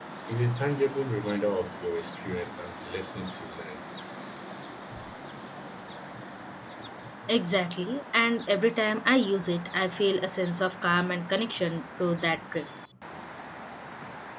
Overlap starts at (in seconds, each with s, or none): none